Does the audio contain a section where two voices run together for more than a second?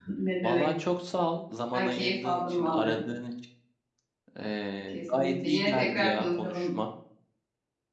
Yes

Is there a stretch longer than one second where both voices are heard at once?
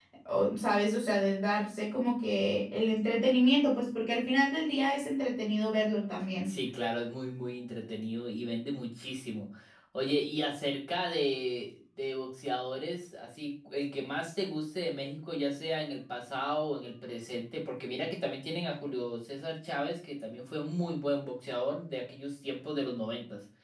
No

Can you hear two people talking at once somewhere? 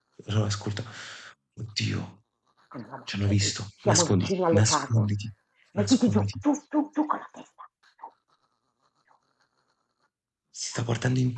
Yes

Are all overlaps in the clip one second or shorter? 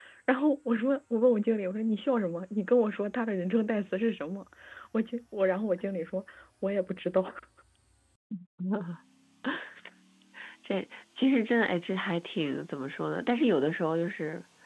Yes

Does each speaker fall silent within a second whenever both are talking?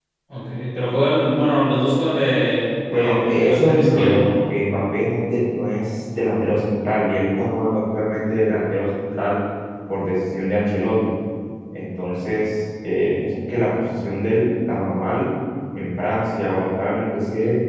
No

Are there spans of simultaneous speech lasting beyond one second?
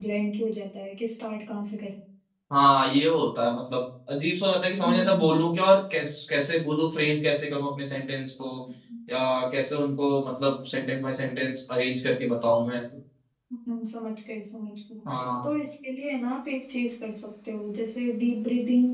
No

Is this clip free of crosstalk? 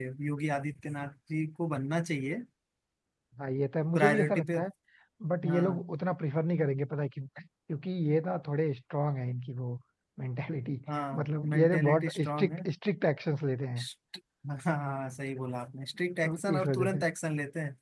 No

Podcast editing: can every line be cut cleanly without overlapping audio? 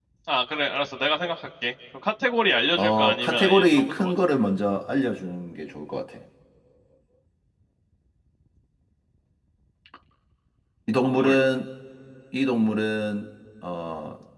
No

